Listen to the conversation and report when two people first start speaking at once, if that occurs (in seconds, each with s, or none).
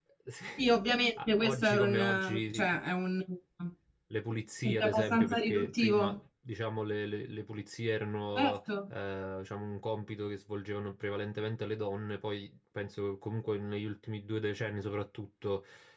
1.3 s